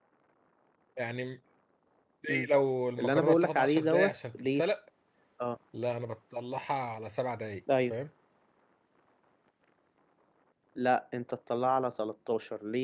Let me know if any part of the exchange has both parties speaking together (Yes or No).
Yes